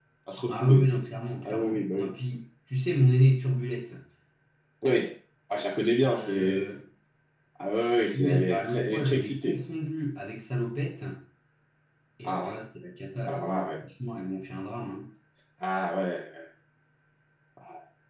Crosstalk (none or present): present